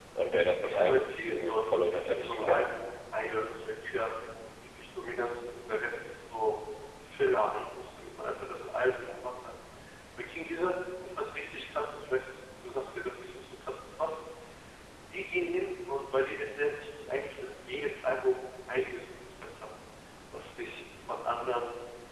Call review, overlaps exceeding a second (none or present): present